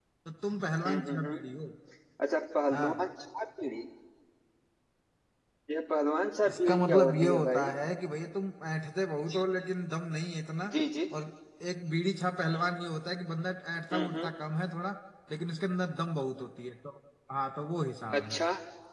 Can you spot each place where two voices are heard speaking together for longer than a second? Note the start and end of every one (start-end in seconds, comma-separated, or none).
6.5-7.7